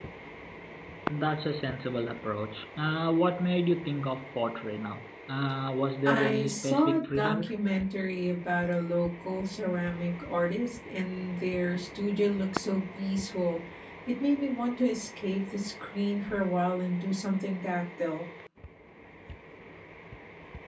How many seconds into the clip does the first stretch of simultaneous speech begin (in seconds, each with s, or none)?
6.0 s